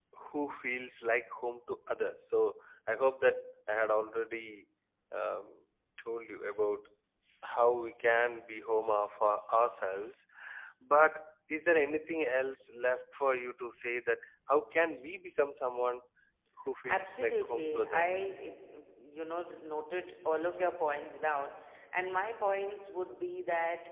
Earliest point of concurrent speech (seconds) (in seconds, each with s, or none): 16.9 s